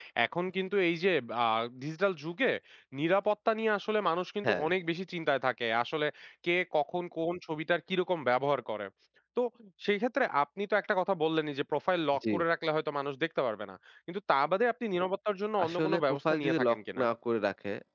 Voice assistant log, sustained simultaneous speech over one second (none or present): present